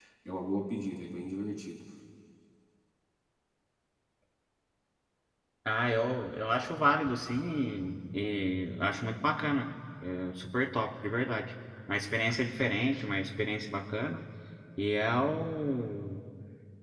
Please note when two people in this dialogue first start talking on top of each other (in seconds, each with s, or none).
none